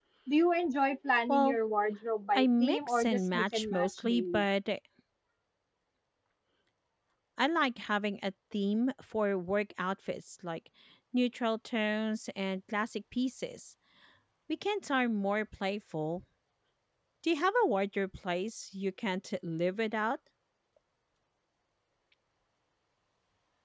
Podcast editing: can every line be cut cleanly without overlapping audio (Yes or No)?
No